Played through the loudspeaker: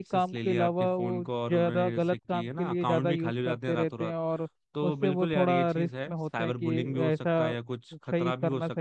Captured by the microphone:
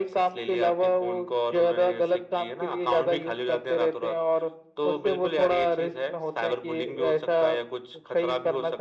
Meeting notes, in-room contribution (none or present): none